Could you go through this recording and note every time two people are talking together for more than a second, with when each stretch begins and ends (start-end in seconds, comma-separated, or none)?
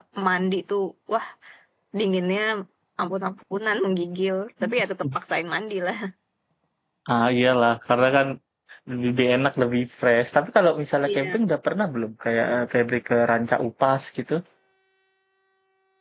none